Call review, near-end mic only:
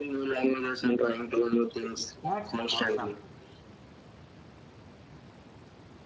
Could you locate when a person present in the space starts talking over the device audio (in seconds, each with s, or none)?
2.1 s